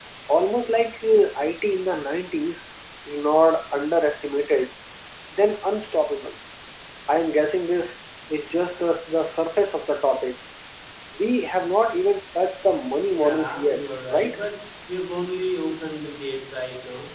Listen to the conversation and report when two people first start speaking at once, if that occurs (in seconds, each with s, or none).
13.1 s